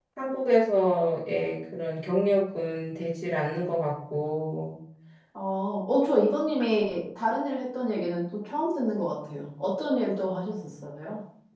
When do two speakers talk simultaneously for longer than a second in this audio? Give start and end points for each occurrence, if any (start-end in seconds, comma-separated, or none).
none